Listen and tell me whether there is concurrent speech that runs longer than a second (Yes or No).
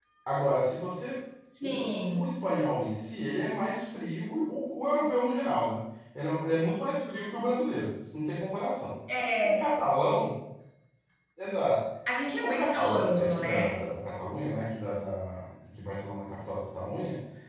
Yes